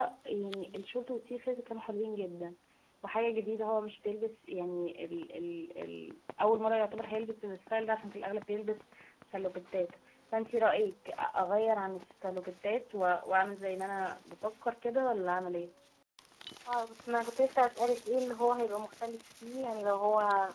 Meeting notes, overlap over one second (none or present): none